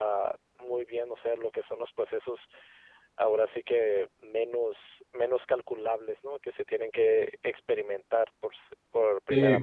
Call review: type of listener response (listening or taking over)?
taking over